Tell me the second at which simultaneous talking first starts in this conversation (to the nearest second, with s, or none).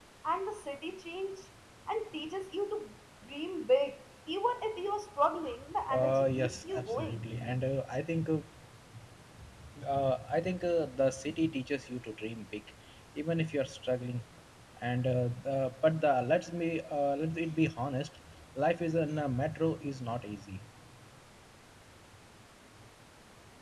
6 s